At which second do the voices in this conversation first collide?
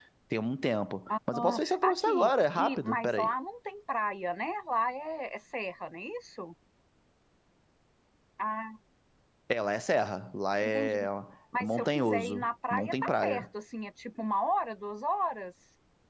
1 s

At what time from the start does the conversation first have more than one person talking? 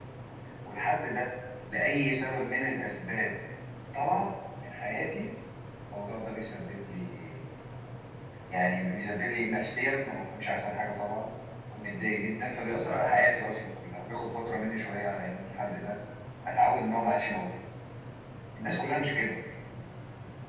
none

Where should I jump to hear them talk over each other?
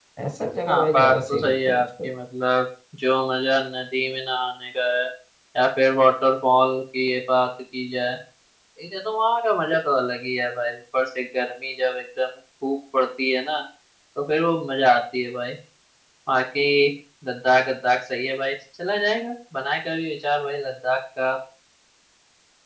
1 s

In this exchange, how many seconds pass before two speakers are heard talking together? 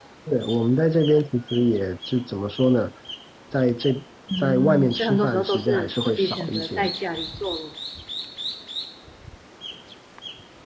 4 s

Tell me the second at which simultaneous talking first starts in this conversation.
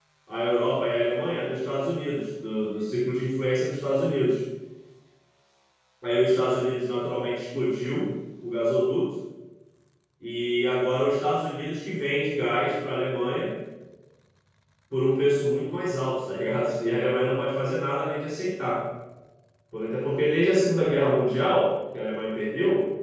none

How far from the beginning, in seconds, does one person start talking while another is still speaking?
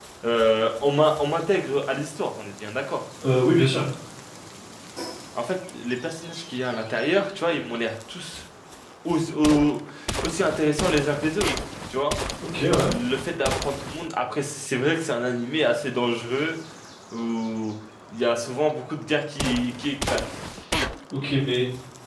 none

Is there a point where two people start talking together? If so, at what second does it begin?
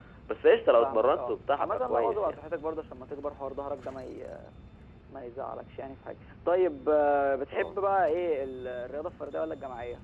1 s

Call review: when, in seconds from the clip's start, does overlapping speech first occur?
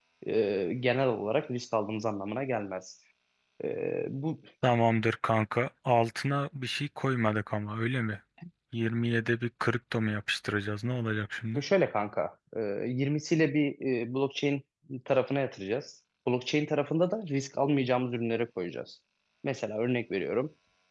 none

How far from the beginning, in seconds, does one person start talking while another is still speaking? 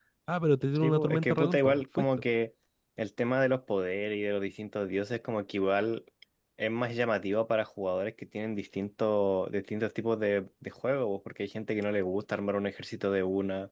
1 s

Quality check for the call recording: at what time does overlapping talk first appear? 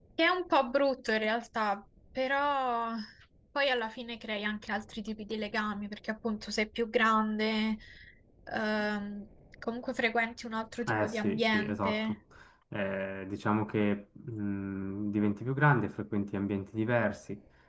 11 s

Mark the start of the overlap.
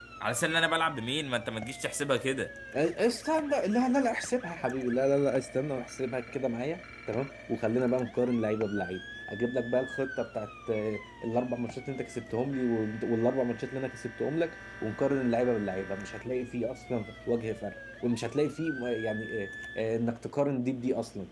none

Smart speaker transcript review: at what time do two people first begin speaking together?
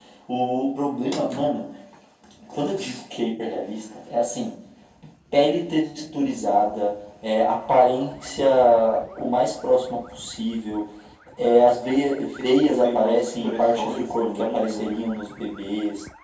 13 s

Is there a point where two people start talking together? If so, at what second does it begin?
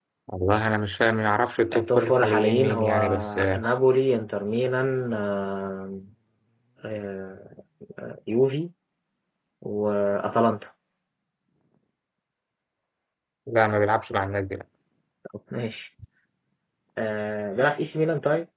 2 s

